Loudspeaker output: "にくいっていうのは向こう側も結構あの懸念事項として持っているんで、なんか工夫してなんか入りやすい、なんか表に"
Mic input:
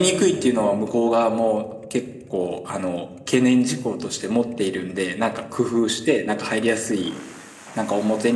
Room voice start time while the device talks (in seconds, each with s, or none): none